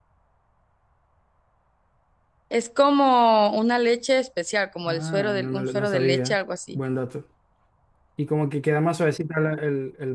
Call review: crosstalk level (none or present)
present